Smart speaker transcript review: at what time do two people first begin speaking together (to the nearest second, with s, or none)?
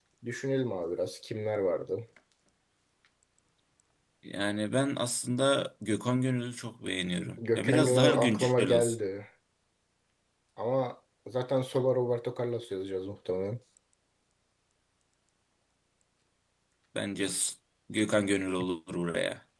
7 s